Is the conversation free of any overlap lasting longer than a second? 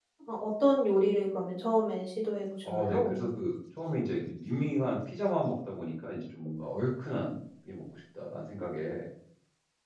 Yes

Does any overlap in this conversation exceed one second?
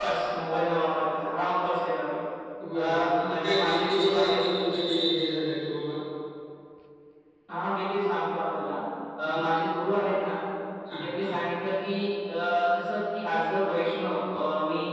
Yes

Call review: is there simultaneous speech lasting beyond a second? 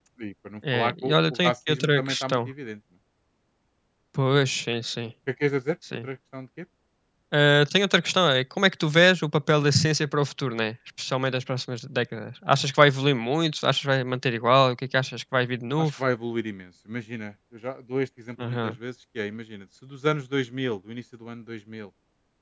Yes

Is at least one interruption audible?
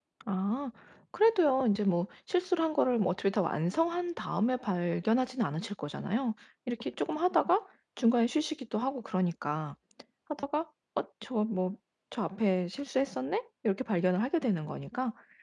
No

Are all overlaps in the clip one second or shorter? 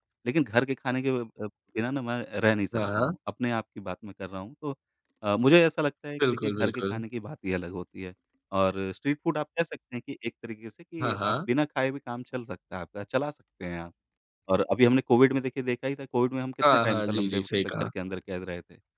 No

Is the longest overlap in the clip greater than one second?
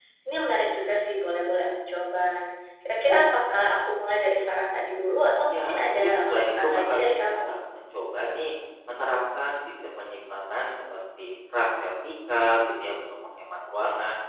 Yes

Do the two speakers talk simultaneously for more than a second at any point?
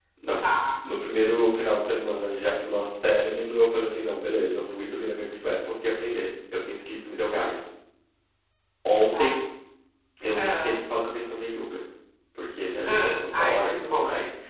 Yes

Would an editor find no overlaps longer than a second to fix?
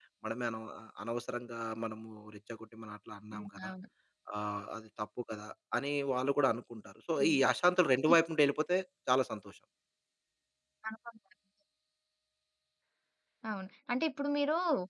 Yes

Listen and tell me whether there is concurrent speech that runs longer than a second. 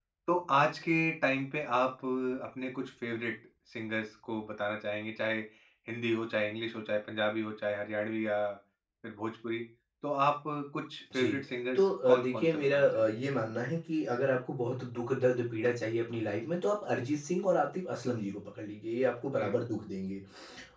Yes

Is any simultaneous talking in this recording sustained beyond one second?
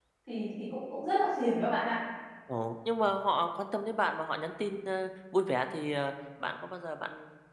No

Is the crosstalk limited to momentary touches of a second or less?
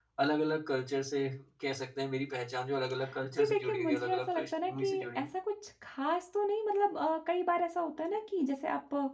No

